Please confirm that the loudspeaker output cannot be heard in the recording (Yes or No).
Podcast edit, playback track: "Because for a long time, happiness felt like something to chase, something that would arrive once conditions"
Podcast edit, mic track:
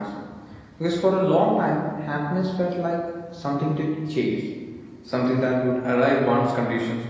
No